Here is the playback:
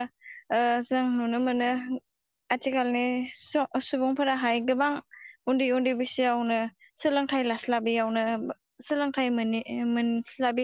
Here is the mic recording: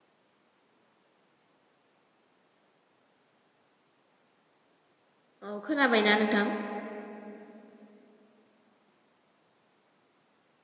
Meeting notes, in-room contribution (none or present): present